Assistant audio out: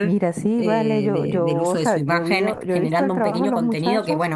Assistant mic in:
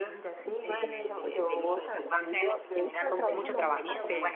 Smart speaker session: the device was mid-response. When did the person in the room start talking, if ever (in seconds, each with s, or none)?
3.3 s